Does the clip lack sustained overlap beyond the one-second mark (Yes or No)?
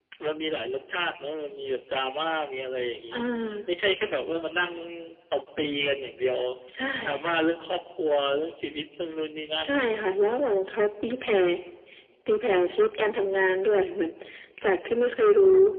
Yes